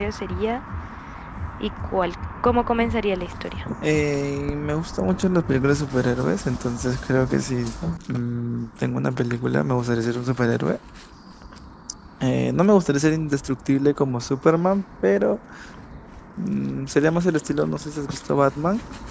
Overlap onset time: none

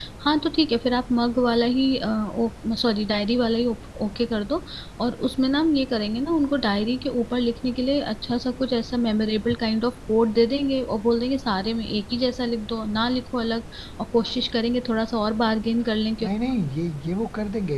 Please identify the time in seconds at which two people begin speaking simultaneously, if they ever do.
none

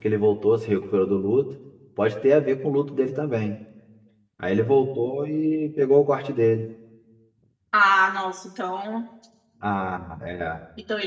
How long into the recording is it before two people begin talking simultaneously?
none

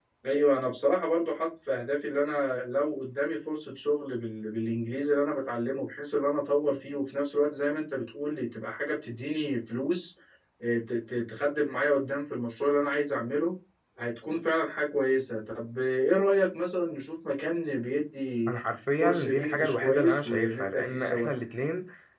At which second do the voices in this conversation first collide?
19 s

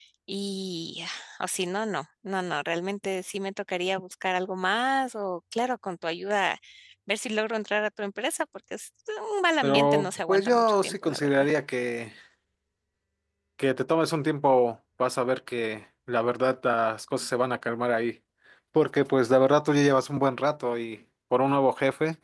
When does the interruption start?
10 s

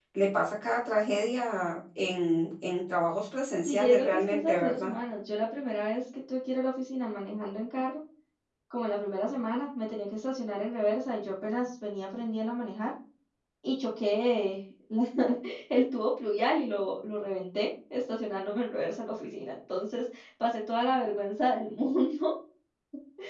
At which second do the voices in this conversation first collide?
4 s

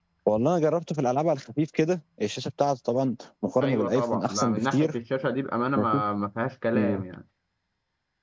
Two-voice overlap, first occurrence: 4 s

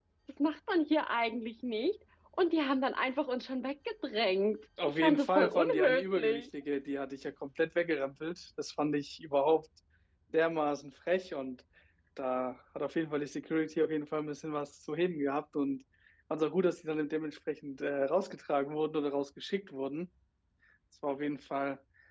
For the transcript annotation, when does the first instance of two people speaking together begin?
5 s

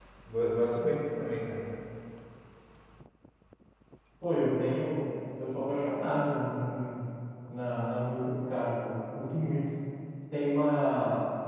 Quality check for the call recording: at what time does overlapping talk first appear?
none

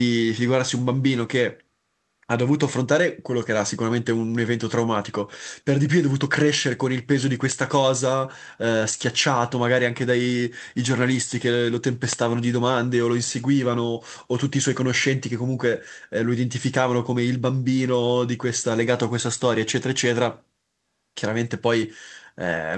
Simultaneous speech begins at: none

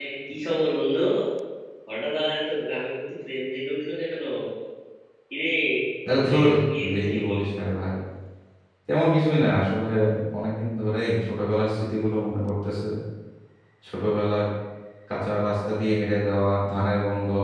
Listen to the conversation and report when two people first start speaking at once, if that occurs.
6 s

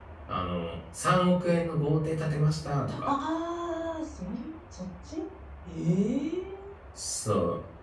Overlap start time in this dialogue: none

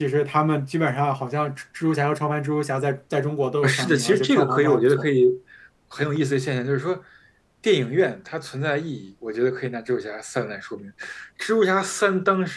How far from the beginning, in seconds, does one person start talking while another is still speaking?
4 s

